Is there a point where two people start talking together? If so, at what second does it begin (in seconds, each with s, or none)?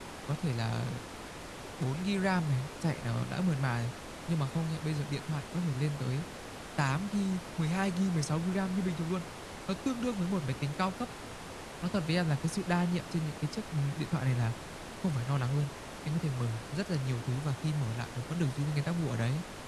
none